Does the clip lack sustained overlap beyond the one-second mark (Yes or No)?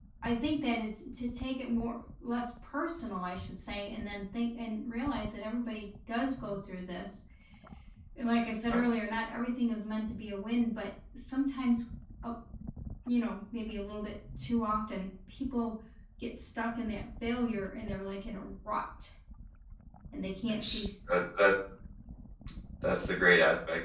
Yes